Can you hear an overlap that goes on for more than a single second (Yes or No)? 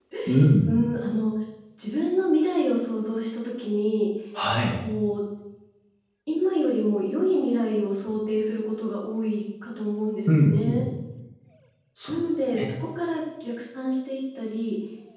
No